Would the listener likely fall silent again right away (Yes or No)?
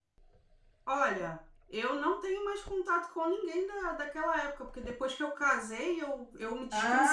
No